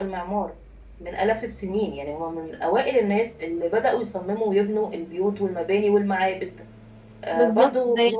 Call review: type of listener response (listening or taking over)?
taking over